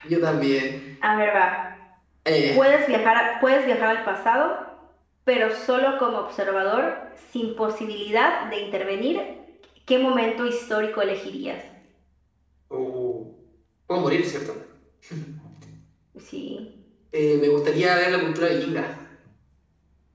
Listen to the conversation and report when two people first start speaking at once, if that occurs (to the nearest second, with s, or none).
none